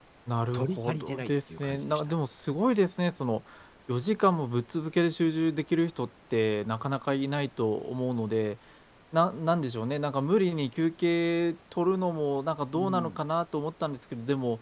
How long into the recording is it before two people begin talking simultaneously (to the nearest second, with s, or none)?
1 s